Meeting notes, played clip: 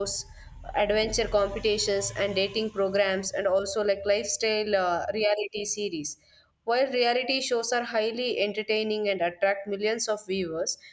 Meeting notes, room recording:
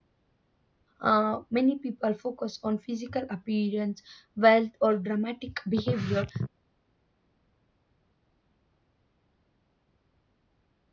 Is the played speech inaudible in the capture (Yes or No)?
Yes